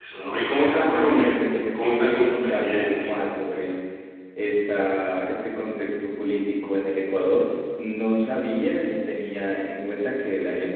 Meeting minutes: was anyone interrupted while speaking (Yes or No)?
Yes